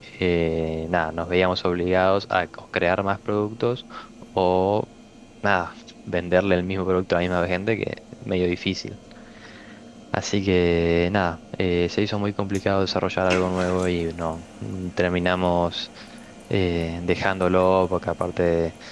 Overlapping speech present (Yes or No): No